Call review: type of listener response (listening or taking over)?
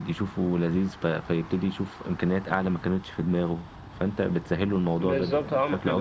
taking over